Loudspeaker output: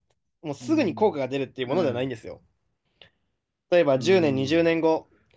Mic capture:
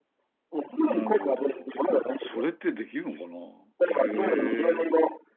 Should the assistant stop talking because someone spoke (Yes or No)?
Yes